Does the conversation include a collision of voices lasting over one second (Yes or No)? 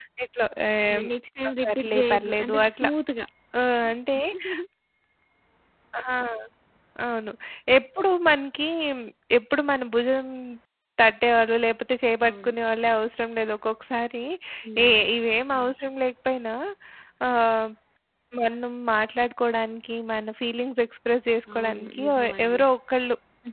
Yes